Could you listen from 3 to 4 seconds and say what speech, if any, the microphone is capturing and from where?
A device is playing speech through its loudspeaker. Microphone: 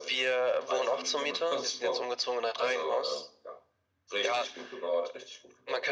echo only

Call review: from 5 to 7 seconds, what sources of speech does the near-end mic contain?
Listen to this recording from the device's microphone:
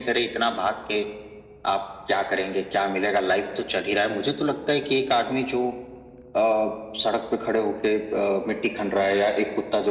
echo only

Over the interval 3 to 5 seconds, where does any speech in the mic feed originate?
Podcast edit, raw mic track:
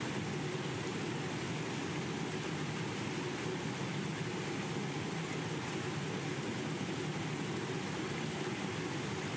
neither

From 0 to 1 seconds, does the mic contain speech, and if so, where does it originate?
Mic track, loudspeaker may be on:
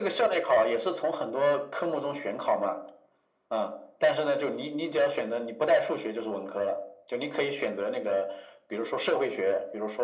echo only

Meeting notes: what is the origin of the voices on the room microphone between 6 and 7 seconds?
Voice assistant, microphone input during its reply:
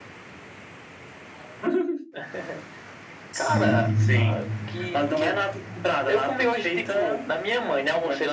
echo only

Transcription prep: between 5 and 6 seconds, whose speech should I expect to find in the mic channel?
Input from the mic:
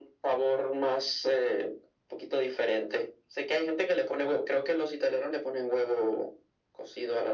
echo only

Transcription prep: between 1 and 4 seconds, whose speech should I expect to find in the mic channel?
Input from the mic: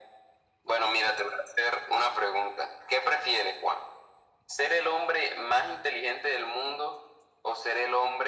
echo only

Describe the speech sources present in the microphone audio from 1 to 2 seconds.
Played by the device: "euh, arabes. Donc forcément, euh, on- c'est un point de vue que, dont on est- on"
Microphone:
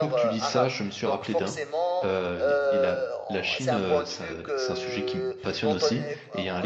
both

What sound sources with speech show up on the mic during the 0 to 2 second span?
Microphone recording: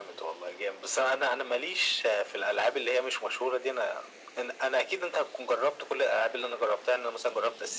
echo only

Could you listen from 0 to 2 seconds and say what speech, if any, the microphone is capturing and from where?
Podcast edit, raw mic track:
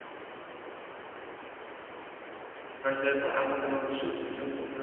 neither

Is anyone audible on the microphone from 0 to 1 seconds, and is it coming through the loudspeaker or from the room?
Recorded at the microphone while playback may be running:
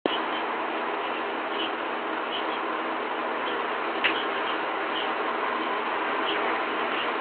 neither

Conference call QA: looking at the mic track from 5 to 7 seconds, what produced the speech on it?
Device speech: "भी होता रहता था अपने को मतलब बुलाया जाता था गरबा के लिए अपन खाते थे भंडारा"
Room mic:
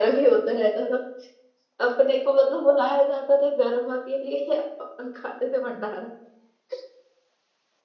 echo only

